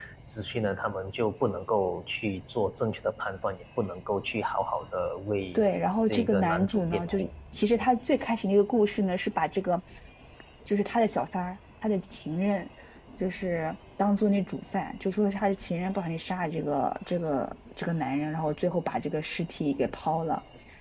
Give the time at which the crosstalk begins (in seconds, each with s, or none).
6.0 s